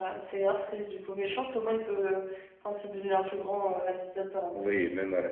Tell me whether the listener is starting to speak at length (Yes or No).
Yes